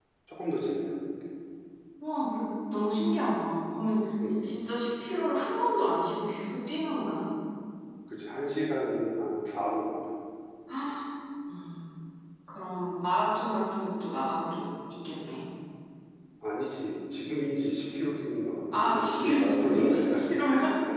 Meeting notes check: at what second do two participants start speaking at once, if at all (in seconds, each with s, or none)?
18.7 s